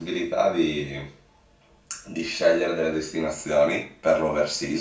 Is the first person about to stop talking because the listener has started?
No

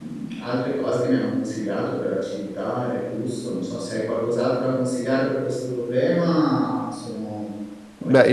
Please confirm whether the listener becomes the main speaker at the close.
Yes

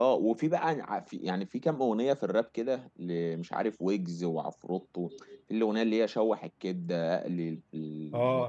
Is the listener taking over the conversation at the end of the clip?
Yes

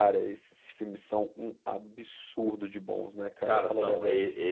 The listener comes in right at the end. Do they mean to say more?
Yes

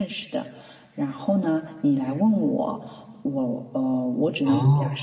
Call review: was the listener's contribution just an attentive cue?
Yes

